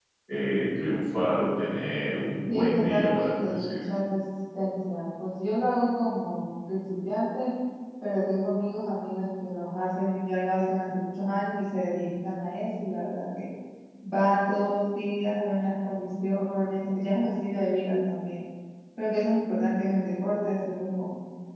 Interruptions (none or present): present